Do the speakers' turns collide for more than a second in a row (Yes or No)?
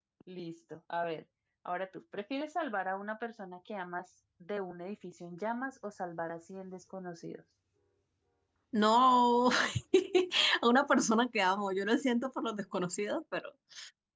No